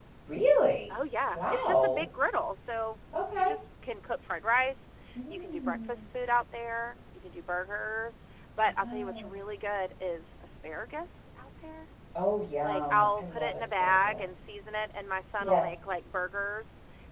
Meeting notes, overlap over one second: present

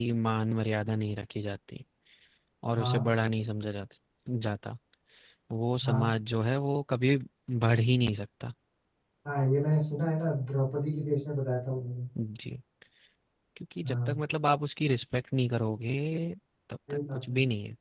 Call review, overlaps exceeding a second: none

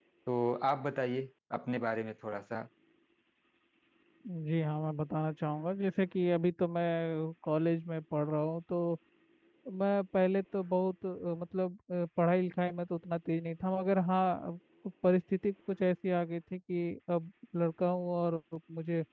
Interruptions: none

